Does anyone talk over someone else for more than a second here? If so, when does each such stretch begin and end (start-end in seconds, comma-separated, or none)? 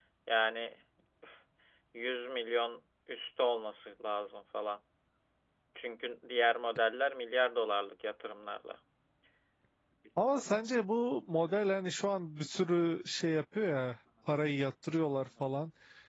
none